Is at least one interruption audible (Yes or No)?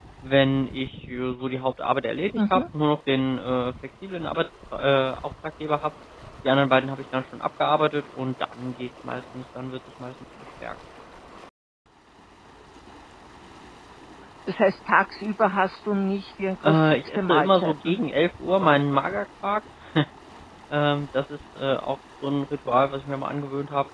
Yes